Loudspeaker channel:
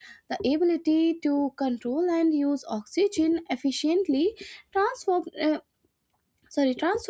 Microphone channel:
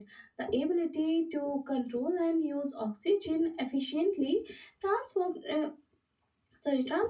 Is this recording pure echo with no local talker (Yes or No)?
Yes